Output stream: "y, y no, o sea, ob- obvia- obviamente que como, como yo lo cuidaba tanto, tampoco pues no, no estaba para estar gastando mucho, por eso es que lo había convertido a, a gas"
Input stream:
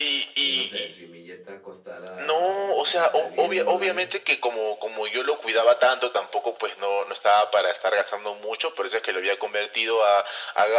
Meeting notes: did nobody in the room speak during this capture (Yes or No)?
No